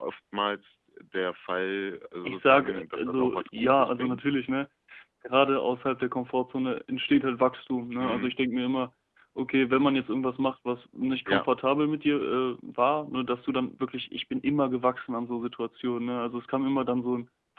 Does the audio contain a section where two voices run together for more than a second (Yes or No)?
Yes